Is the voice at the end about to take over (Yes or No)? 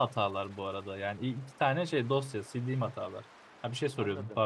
Yes